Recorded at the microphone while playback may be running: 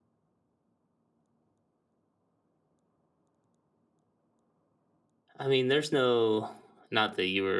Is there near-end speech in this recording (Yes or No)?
Yes